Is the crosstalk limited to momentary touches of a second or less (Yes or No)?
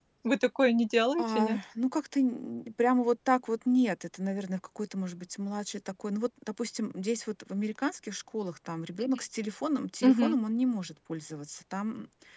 Yes